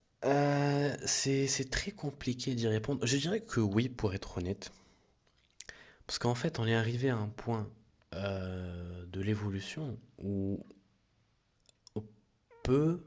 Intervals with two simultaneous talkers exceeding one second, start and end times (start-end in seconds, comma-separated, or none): none